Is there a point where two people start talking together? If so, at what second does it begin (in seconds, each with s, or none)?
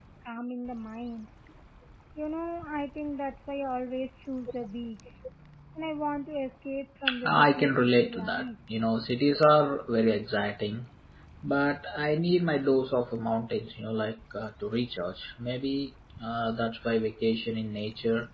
7.1 s